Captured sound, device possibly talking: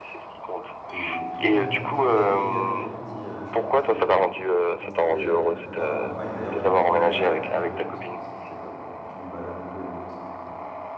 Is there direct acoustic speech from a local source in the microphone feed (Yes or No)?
Yes